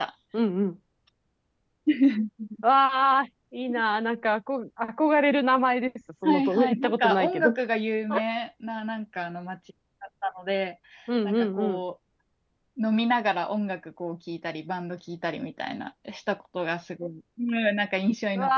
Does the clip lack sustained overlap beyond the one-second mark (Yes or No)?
No